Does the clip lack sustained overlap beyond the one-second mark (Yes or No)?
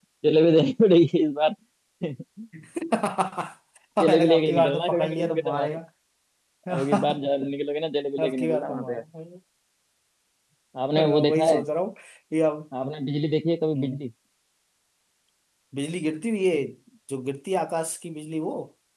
No